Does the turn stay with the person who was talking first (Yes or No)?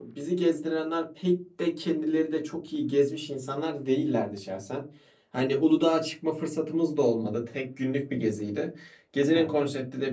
Yes